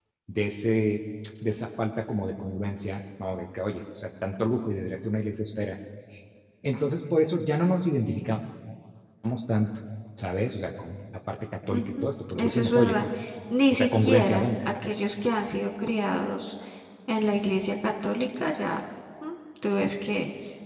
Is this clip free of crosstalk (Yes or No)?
No